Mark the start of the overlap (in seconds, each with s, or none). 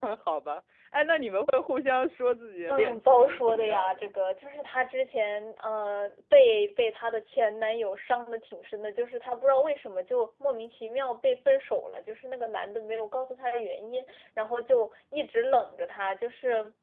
2.7 s